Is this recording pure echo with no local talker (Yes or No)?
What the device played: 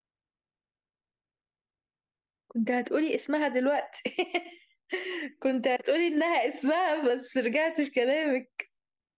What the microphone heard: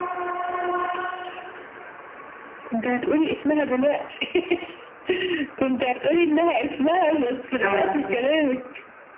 No